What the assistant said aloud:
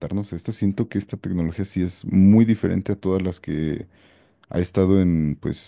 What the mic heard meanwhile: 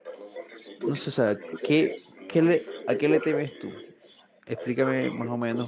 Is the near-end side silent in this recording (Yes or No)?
No